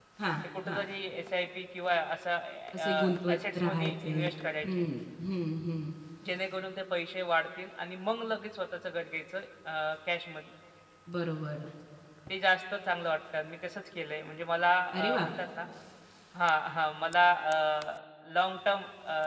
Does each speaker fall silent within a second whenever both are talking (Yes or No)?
No